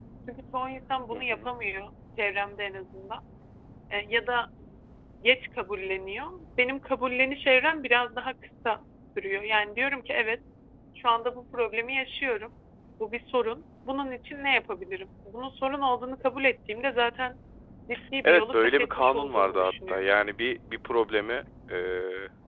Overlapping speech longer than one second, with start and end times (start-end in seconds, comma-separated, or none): 18.2-20.0